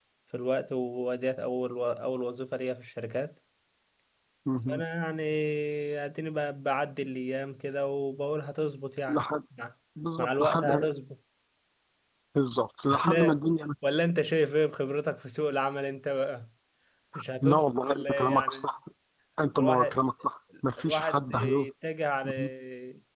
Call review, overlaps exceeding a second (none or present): present